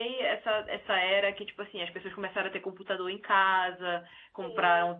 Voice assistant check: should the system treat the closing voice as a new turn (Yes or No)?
No